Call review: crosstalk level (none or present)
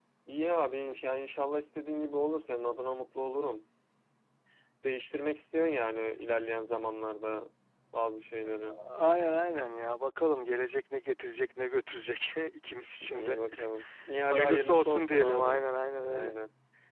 present